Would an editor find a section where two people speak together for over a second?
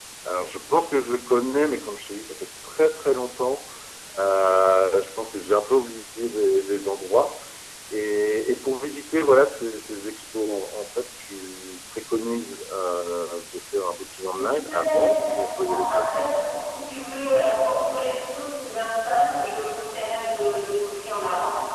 Yes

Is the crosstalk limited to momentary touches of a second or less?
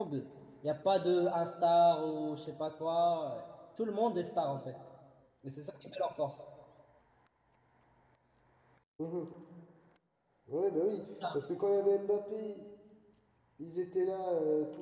Yes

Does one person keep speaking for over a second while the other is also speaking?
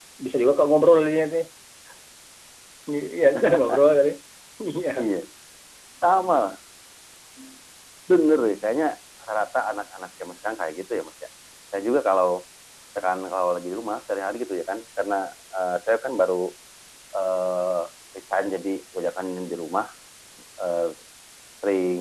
No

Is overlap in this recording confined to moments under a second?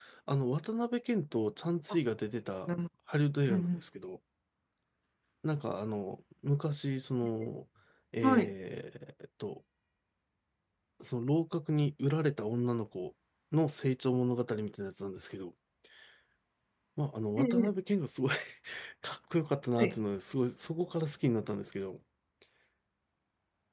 Yes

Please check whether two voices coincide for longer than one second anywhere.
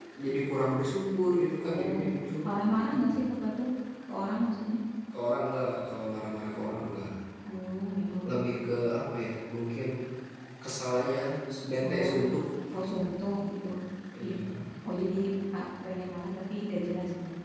No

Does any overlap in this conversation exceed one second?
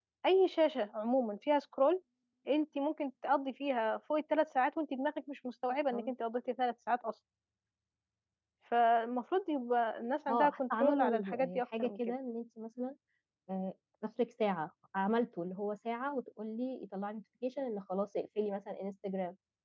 Yes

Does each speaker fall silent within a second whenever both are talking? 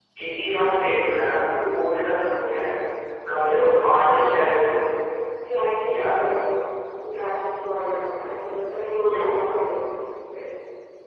No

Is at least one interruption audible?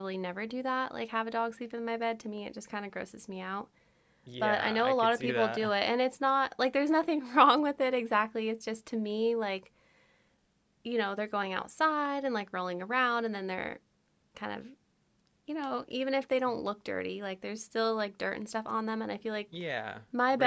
Yes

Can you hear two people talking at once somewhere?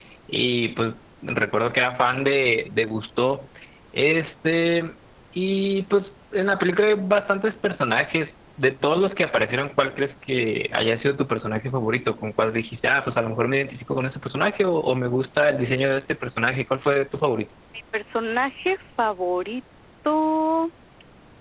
No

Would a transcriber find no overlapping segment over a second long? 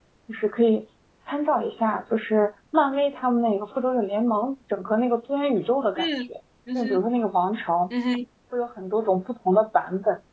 Yes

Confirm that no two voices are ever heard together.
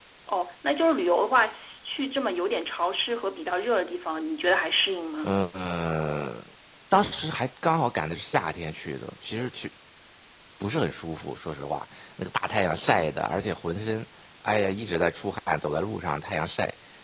Yes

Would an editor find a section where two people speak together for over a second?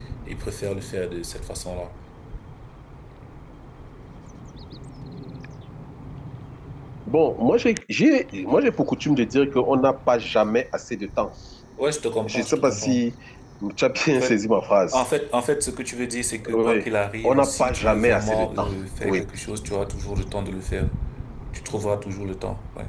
Yes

